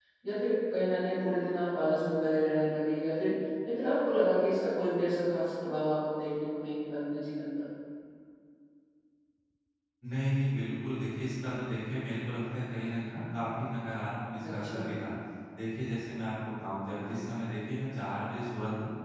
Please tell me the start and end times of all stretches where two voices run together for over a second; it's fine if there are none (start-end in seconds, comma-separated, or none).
none